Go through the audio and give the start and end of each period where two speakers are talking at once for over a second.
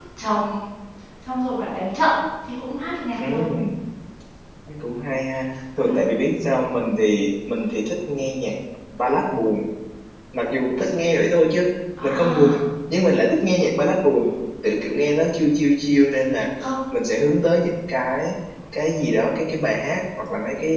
none

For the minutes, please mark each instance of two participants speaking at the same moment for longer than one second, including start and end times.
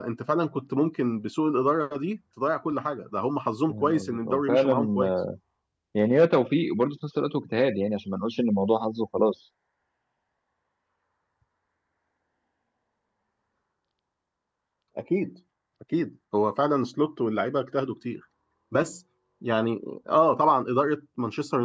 3.7-5.1

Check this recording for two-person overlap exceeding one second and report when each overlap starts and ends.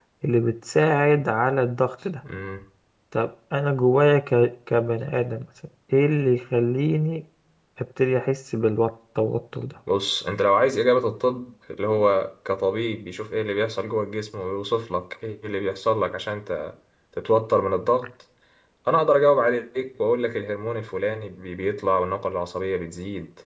none

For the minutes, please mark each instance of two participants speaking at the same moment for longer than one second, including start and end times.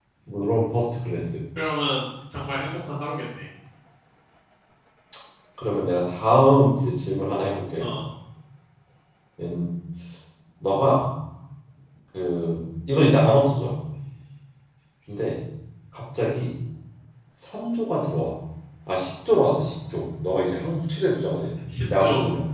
none

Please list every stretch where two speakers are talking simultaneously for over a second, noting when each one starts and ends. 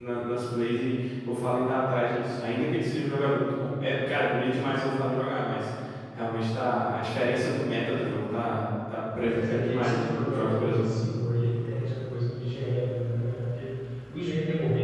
9.3-10.8

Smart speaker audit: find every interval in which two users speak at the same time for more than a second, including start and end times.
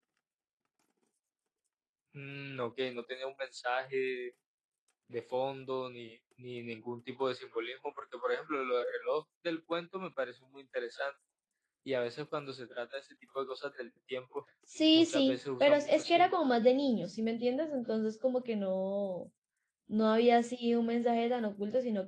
14.9-16.4

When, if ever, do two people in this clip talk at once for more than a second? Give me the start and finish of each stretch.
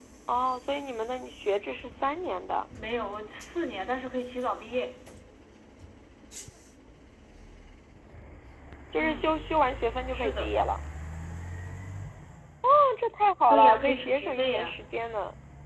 13.5-14.7

